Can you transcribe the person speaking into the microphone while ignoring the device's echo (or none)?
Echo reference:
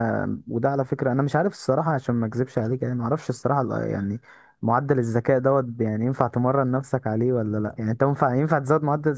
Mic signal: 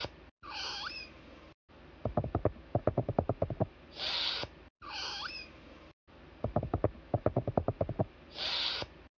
none